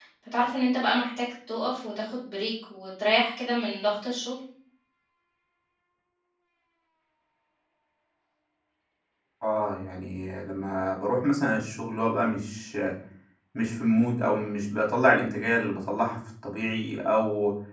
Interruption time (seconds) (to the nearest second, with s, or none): none